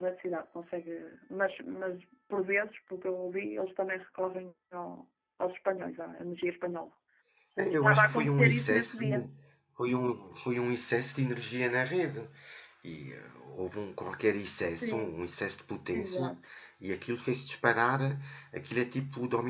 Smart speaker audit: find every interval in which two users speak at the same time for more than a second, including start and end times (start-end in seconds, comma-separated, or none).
7.7-9.3